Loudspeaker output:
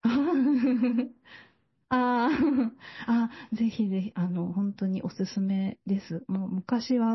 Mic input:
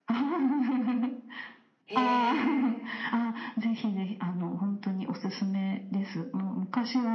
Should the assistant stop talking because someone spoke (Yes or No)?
Yes